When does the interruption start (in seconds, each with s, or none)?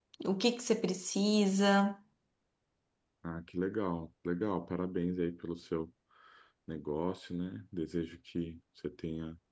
none